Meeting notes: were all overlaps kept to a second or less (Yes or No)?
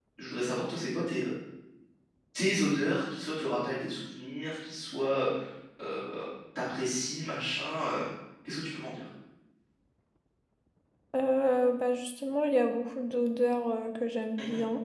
Yes